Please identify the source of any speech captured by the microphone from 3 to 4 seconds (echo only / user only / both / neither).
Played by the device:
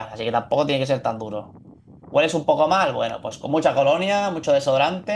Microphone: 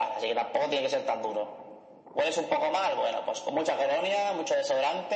echo only